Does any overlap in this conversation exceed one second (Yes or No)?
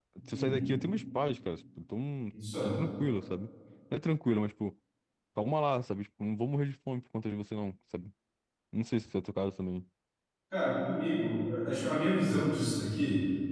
No